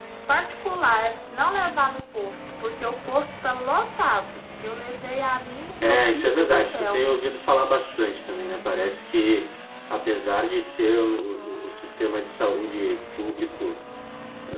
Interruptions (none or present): present